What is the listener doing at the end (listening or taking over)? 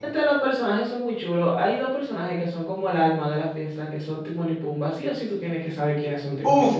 taking over